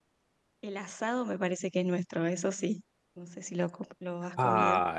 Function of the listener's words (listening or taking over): taking over